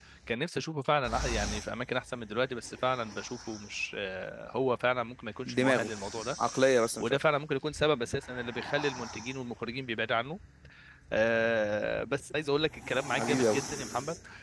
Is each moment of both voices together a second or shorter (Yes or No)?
Yes